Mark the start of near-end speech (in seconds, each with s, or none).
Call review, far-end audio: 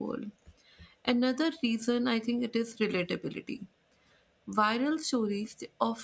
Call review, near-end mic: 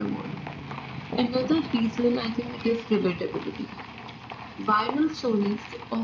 none